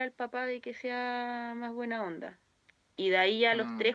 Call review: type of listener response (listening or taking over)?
listening